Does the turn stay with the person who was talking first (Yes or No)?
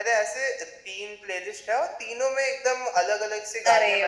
No